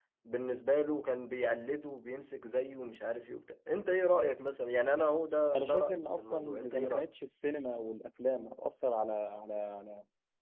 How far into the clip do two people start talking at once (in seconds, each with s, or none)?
5.5 s